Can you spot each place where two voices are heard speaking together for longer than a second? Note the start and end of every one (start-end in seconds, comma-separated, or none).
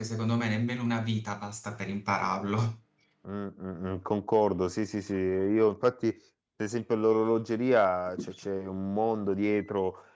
none